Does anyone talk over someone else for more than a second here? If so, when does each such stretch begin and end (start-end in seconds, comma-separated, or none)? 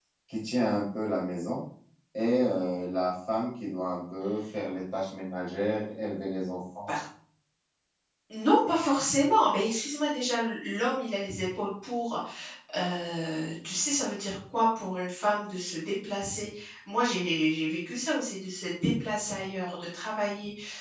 none